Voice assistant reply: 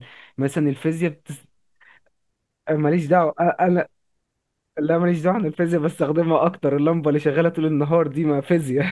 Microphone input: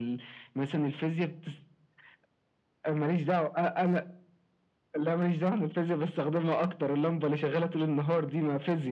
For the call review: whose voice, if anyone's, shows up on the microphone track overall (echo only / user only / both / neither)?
echo only